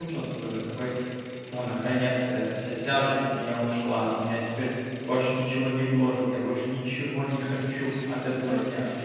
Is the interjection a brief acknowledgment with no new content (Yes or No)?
Yes